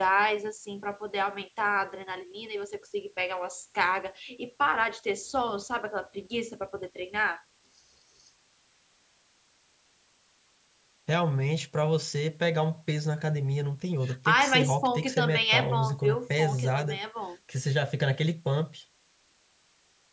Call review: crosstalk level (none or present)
present